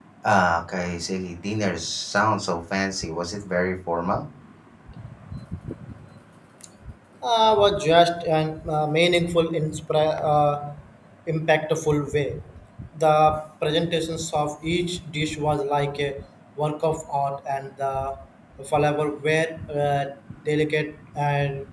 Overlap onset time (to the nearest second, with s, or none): none